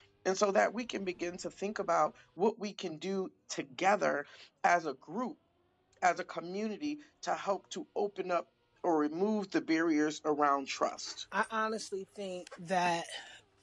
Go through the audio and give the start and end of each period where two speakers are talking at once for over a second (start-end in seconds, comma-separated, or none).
none